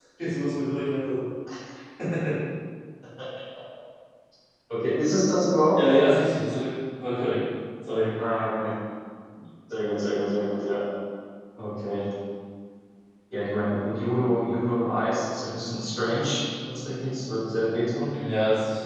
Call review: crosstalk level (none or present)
none